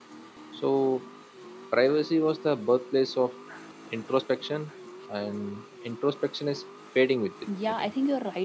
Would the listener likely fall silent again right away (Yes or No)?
No